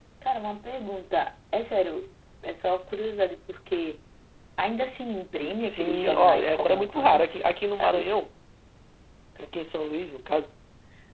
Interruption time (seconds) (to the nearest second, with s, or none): 6 s